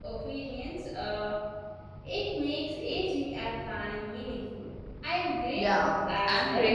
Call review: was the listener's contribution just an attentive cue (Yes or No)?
No